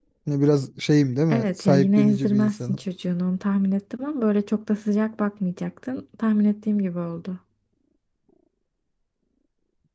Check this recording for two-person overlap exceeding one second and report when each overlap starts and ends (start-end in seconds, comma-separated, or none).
1.3-2.8